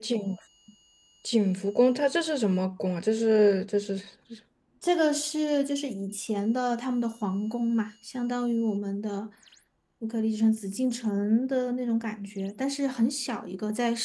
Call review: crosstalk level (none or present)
none